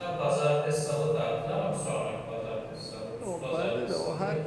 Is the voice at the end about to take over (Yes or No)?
Yes